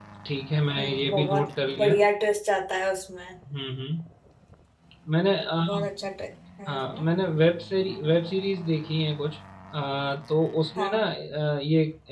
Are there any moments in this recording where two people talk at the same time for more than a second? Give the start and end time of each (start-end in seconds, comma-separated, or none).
0.7-2.0